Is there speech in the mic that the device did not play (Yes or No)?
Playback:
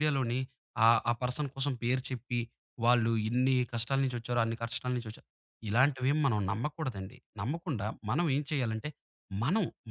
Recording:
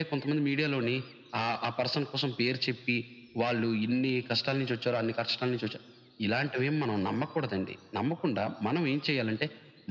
No